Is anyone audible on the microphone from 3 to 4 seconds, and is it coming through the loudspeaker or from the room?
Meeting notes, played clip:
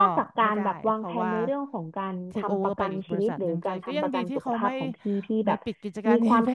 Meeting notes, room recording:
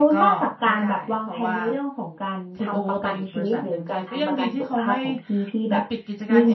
echo only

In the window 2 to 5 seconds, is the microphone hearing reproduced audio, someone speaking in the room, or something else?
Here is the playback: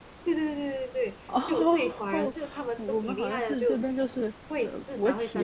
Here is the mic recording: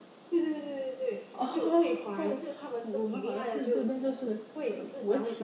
echo only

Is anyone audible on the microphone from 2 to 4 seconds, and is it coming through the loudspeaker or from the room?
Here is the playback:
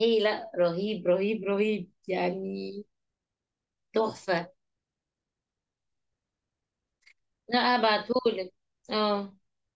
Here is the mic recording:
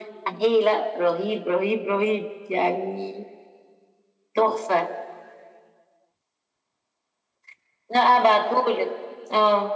echo only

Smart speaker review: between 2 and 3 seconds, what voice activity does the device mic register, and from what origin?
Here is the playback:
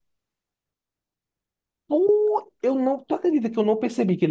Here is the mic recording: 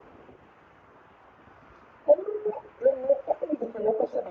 echo only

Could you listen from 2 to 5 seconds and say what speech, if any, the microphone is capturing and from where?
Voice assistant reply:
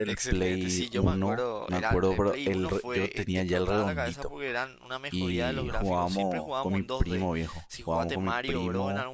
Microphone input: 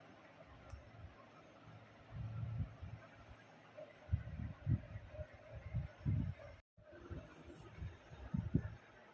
neither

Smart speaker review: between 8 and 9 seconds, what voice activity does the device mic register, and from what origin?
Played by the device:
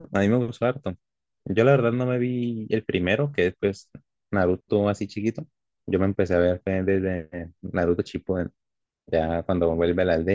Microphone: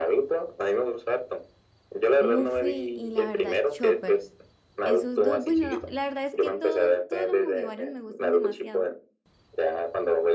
both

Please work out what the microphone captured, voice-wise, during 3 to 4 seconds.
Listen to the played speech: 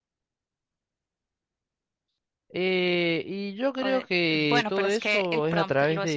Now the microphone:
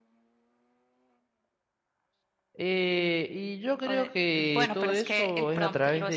echo only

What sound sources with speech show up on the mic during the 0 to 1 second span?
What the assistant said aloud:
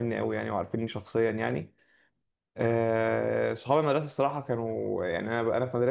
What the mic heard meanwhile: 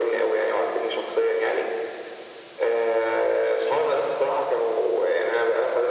echo only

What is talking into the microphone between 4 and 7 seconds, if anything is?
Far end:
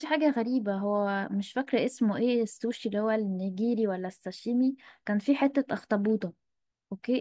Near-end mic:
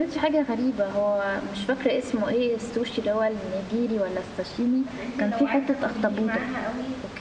both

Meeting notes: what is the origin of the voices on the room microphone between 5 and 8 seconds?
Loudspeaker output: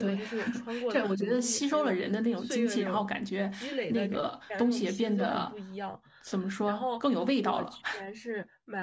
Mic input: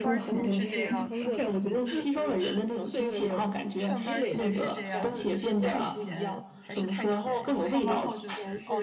both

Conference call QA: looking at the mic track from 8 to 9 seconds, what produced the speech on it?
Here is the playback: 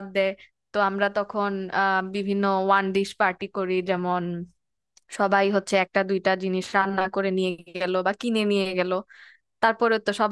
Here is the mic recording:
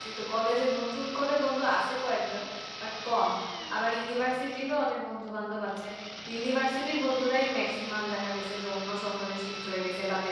user only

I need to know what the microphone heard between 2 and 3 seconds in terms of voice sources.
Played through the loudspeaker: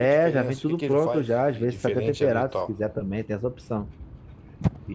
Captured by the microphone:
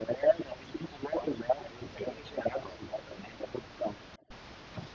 echo only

